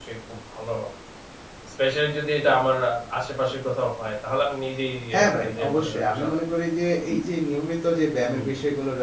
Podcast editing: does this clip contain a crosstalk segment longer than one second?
Yes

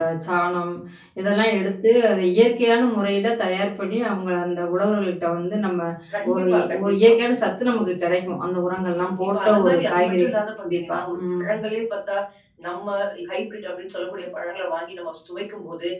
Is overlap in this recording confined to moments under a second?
No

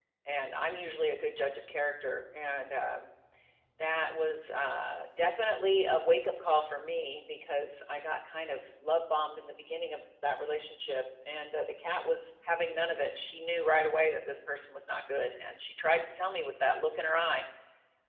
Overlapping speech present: No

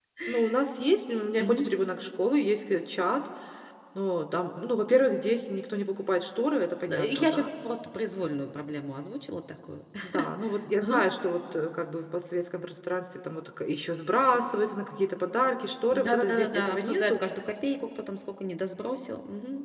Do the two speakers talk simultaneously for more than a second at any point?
Yes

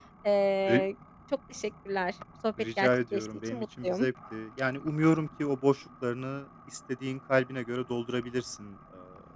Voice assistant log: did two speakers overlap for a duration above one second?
Yes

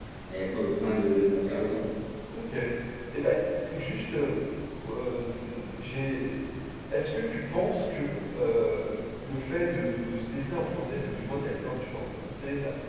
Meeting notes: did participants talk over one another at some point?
No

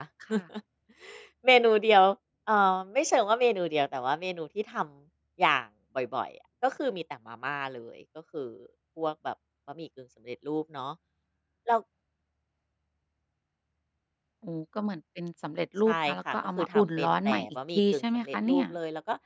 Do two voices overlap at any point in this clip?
Yes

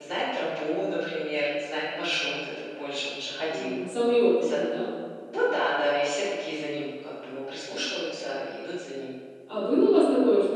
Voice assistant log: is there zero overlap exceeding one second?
Yes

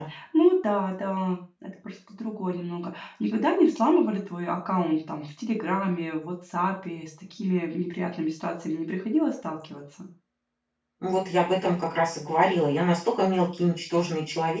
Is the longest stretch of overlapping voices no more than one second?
Yes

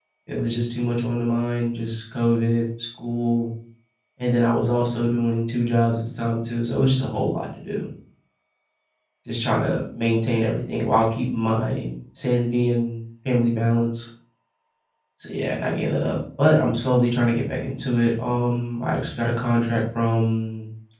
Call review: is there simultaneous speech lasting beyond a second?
No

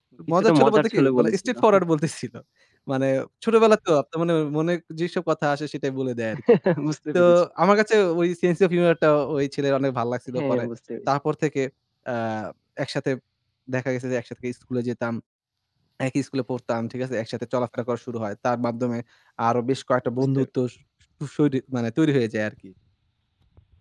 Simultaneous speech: Yes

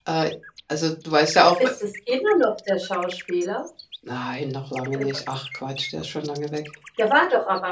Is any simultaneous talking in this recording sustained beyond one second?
No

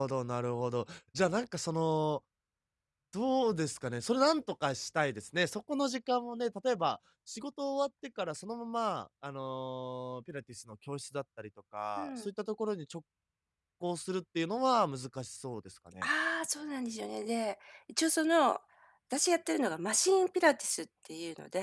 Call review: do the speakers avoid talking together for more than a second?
Yes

